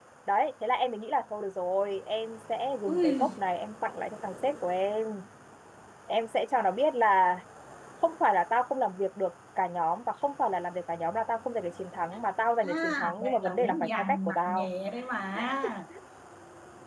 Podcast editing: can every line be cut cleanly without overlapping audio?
No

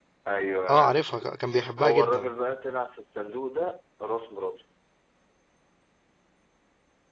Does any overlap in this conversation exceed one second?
No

